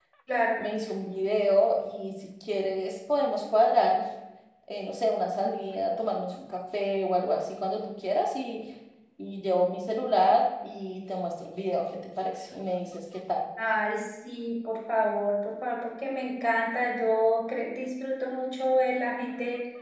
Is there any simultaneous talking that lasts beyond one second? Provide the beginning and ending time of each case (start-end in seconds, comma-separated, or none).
none